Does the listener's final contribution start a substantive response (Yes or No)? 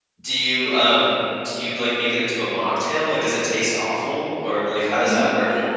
Yes